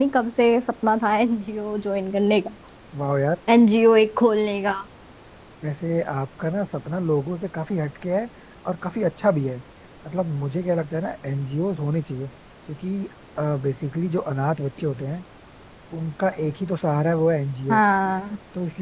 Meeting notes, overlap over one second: none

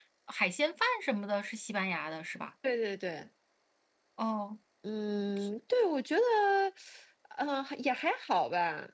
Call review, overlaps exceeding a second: none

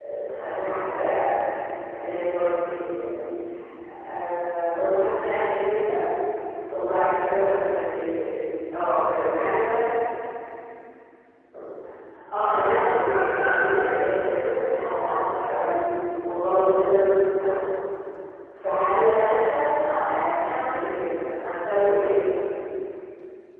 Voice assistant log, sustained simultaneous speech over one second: present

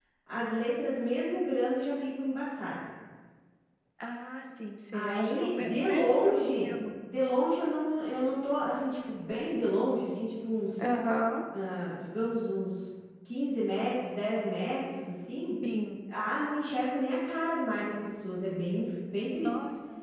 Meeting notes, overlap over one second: present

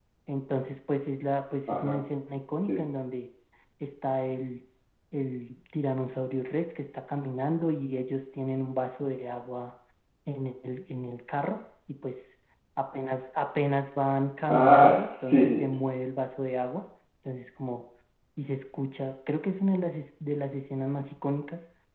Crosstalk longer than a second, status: present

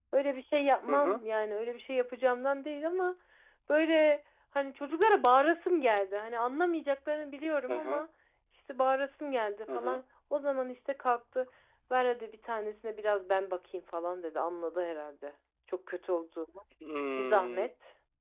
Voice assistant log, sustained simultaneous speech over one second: none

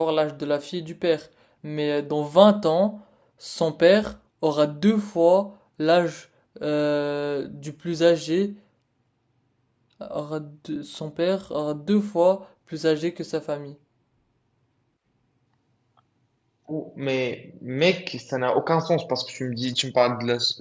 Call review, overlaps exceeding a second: none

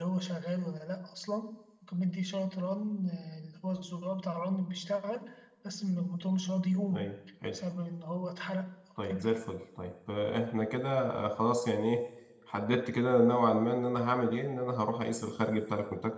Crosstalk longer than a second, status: none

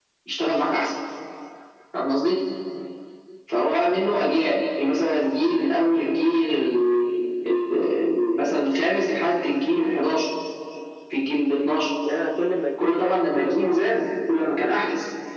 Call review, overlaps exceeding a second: present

